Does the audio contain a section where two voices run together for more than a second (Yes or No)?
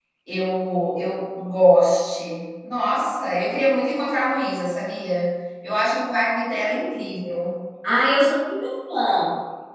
No